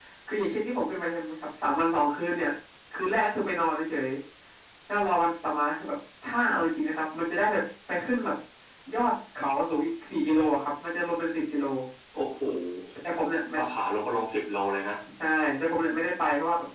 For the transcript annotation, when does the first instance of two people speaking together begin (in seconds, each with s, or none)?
none